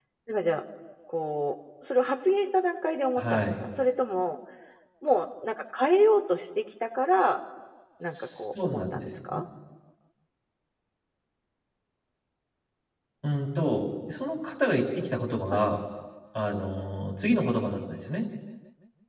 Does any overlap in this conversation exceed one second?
Yes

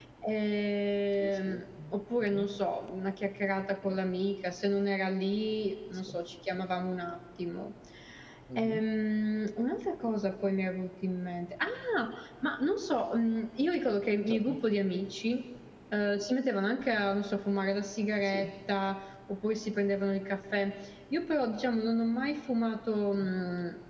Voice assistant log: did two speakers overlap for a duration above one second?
No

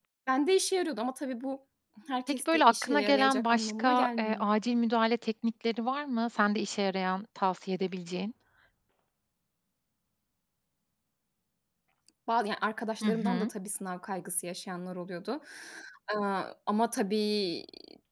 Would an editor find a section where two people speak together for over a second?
Yes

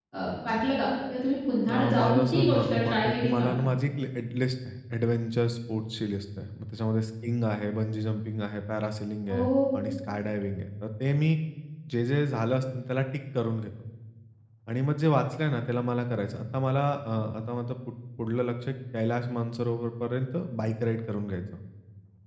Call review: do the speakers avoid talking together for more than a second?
No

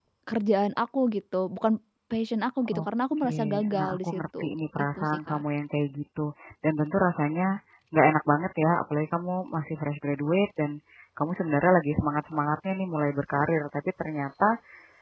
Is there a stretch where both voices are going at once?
Yes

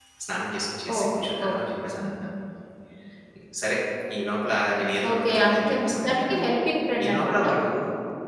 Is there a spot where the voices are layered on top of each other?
Yes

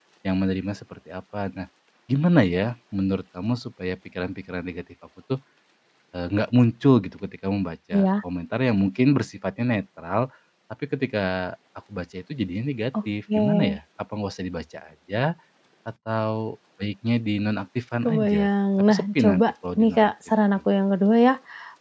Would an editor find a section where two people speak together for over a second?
Yes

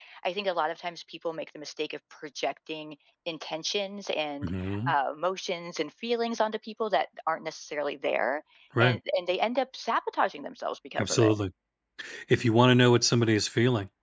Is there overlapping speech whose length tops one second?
No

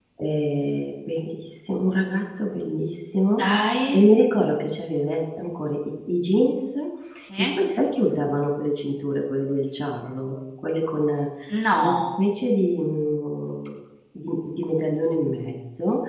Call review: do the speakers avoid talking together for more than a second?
Yes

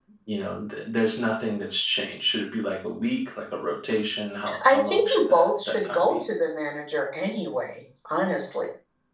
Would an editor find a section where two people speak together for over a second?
Yes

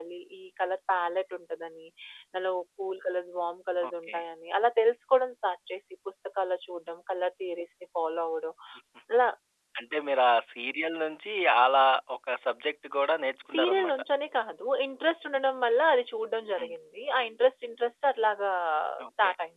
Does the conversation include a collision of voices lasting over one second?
No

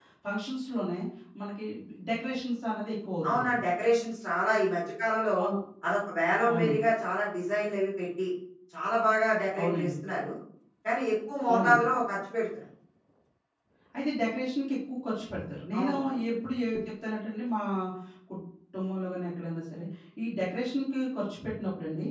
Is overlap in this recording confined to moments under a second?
Yes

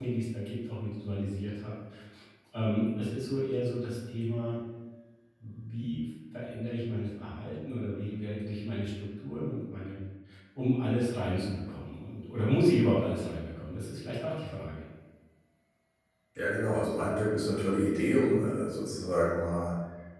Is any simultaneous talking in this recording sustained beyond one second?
No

